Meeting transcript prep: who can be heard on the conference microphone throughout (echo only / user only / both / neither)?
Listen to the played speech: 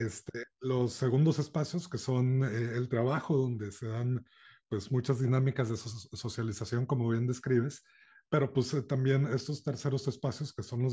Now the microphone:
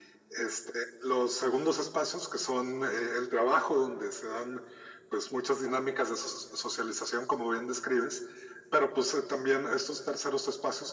echo only